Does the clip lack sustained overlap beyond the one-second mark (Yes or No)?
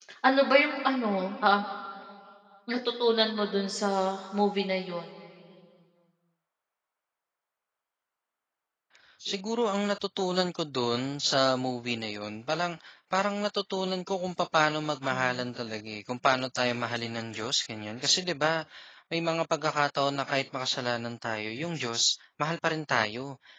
Yes